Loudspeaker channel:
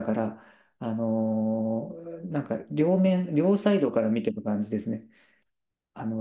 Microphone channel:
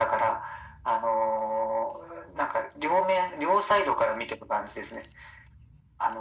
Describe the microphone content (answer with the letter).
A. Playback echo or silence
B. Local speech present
A